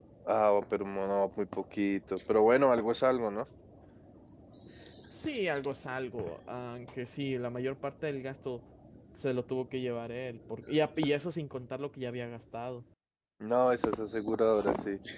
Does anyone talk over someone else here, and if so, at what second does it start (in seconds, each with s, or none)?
none